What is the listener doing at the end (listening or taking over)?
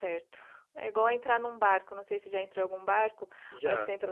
listening